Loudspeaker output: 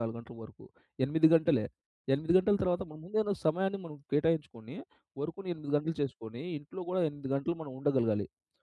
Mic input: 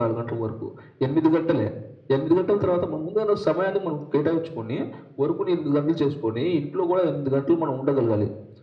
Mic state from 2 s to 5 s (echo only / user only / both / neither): echo only